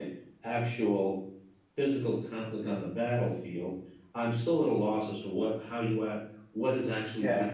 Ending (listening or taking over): taking over